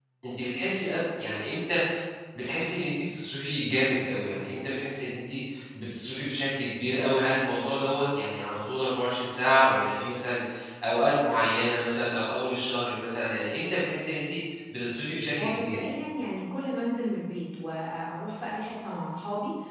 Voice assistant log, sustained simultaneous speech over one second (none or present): none